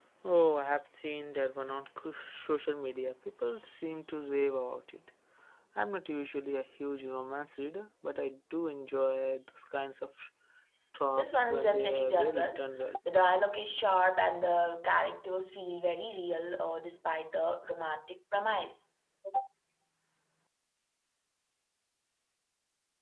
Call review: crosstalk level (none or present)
present